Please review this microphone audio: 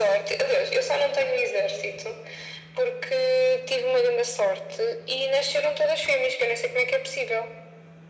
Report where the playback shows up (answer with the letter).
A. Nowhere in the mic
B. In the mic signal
B